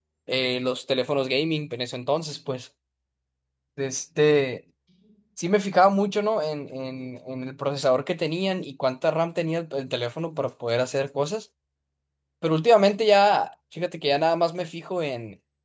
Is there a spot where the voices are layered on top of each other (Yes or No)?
No